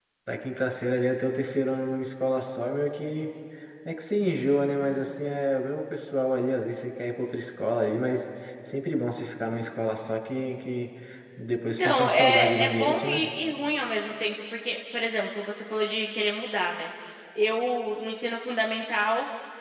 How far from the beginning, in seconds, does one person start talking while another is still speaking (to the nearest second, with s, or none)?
12 s